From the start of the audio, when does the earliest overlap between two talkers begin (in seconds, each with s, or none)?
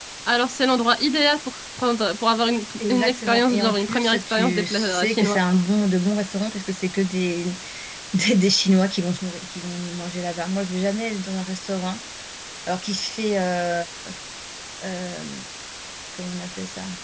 2.8 s